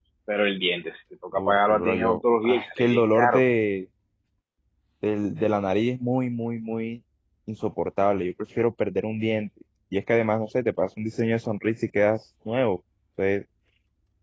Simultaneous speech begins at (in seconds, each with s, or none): 1.3 s